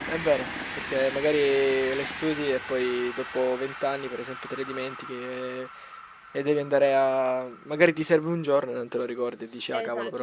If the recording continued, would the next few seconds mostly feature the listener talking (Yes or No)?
Yes